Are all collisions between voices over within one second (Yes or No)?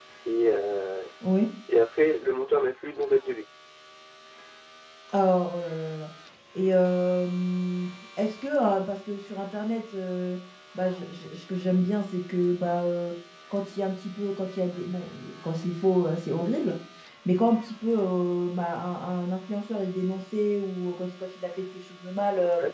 Yes